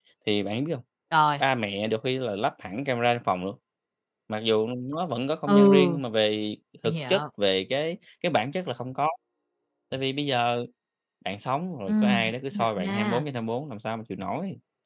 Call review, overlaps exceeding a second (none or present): present